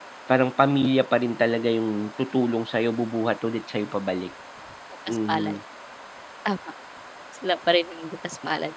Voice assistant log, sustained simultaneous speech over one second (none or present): none